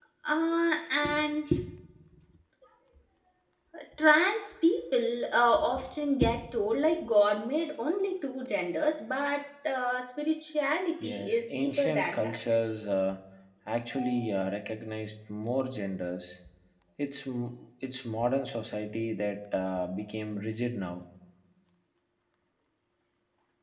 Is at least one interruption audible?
Yes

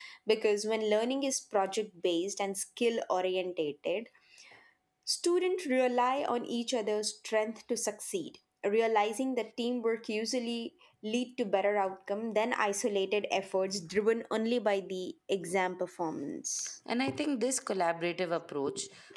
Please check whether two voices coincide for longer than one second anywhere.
No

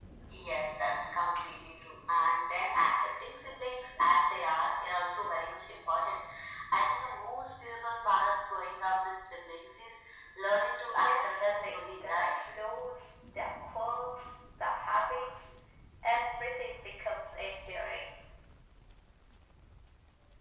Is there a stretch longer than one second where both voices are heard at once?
Yes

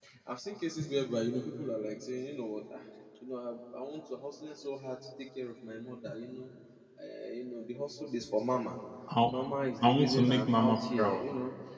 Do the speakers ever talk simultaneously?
Yes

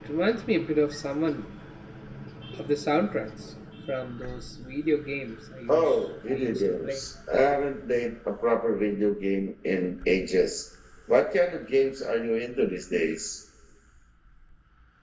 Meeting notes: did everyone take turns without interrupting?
No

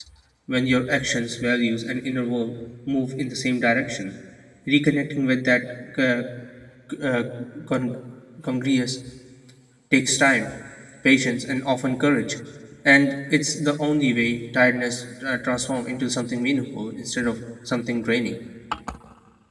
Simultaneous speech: No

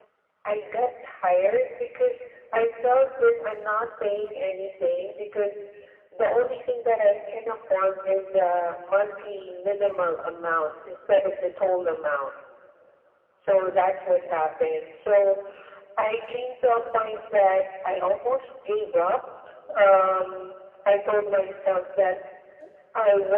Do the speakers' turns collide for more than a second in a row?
No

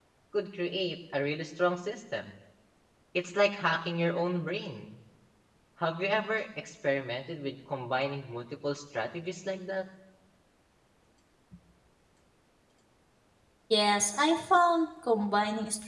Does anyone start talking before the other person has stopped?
No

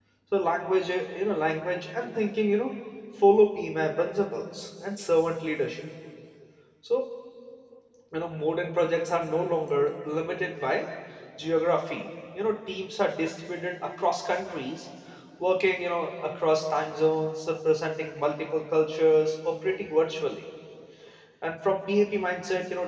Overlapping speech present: No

